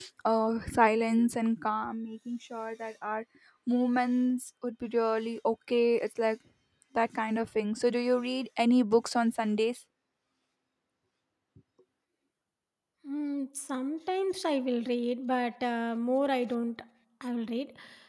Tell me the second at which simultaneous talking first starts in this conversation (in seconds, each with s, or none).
none